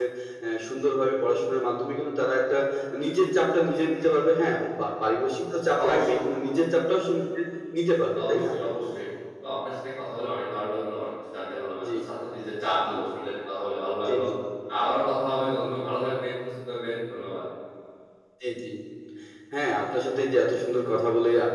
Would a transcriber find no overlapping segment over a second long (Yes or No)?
Yes